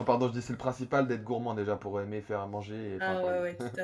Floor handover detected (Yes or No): Yes